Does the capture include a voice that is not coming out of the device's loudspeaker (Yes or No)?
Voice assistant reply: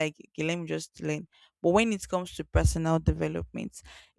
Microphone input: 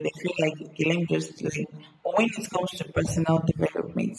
No